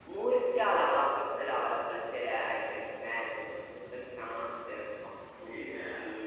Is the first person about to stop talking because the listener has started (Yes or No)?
Yes